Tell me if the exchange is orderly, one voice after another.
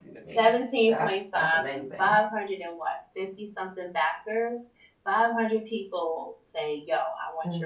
No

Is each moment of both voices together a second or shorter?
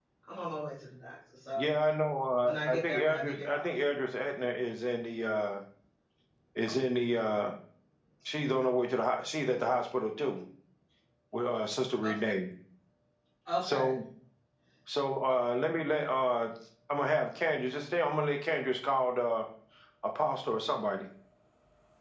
No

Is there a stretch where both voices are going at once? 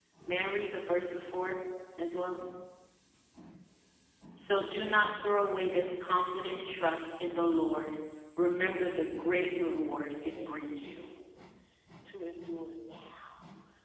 Yes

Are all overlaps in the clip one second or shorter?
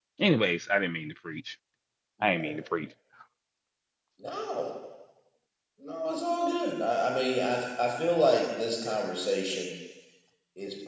Yes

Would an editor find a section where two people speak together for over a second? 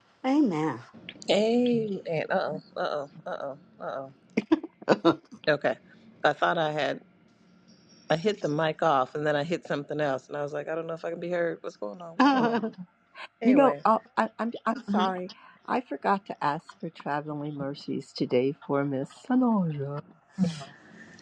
No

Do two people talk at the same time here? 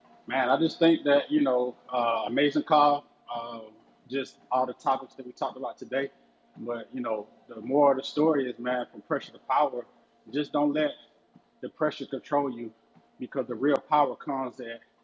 No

